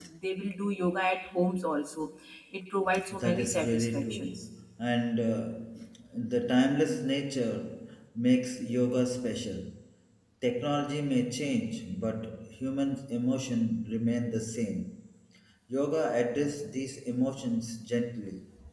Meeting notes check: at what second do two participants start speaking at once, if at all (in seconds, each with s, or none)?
3.1 s